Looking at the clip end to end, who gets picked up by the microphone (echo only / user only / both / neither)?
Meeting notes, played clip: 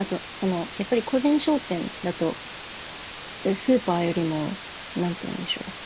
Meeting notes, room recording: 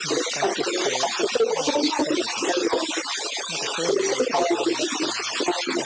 both